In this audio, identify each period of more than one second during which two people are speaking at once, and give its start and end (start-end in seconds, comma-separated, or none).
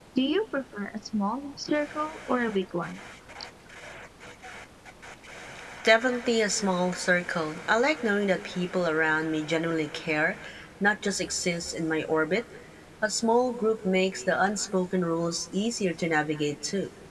none